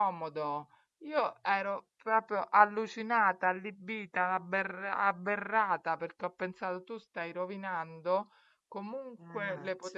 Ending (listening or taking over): listening